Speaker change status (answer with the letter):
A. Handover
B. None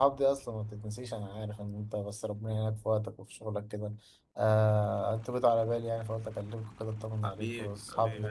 A